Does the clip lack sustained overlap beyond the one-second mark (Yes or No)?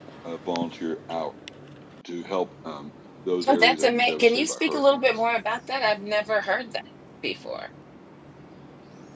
No